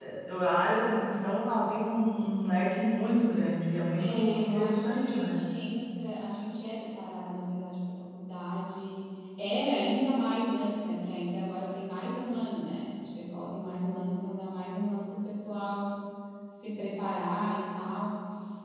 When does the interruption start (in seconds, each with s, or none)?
3.9 s